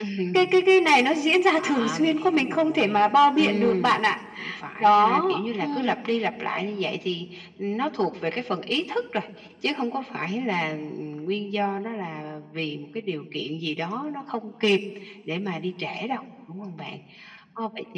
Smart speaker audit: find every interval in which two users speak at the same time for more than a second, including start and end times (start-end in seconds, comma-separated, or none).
1.6-4.0